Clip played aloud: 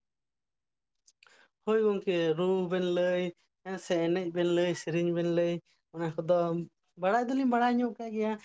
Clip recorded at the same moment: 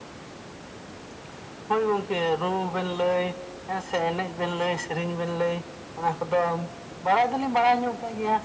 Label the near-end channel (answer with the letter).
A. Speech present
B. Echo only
B